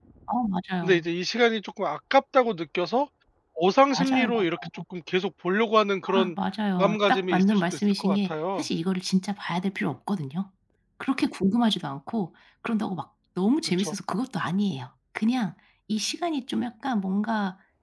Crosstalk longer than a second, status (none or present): present